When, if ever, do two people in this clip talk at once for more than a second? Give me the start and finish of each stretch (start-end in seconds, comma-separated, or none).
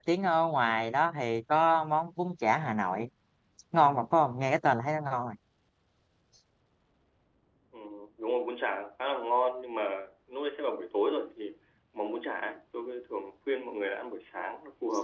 none